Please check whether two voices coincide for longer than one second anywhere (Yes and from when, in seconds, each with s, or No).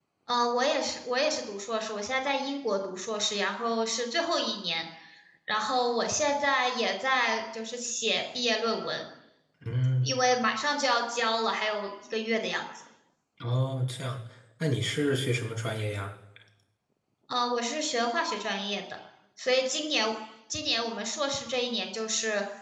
No